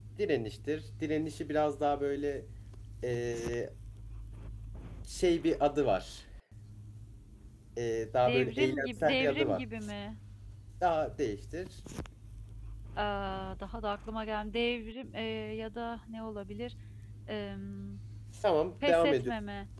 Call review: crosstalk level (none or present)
present